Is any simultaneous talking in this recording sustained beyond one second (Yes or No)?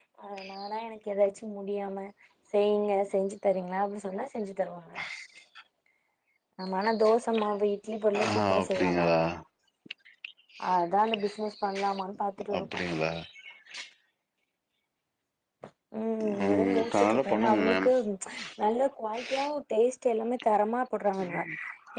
Yes